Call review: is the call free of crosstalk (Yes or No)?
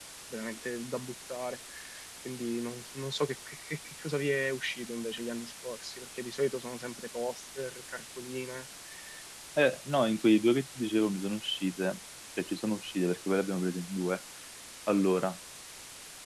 Yes